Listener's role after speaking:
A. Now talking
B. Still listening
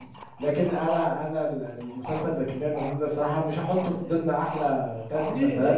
A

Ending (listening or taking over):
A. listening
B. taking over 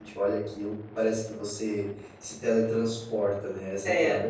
B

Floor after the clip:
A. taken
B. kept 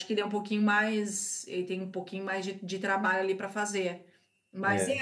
B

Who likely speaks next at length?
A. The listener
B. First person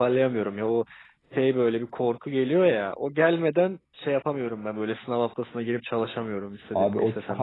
A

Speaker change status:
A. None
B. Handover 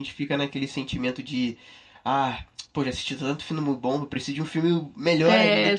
B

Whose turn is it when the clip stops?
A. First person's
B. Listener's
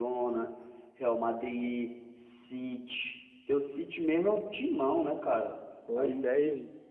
B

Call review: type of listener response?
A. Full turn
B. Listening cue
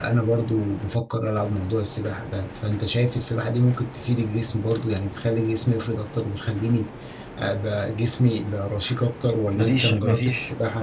A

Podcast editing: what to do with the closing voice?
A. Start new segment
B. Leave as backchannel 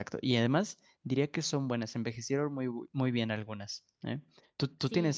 A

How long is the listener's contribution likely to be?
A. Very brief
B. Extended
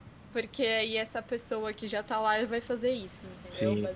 B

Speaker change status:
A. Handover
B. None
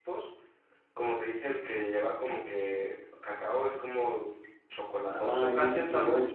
A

